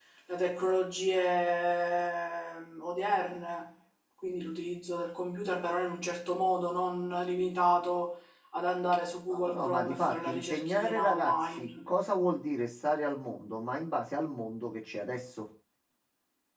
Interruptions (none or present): present